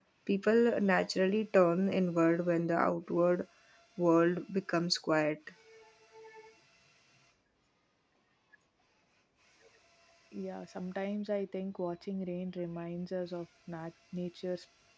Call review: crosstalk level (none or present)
none